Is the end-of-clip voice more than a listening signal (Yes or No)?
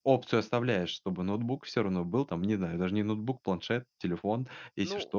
Yes